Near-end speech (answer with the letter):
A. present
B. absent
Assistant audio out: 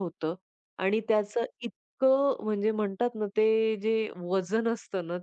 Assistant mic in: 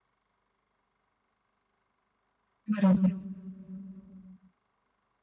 A